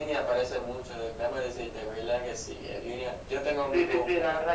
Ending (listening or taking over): taking over